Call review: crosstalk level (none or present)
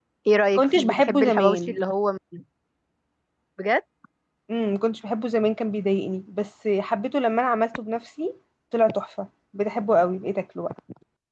present